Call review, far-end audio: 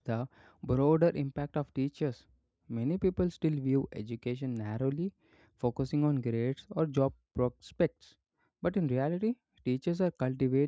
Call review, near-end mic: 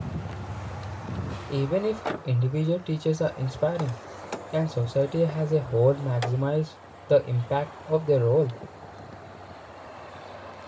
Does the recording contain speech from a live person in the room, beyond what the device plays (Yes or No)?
Yes